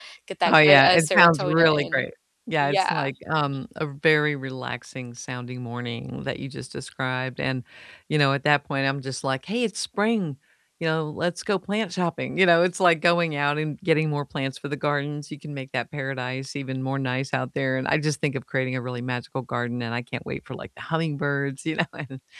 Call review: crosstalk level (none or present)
present